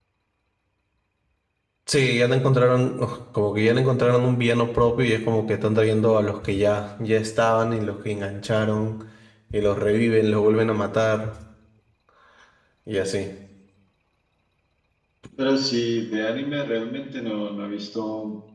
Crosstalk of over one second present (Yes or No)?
No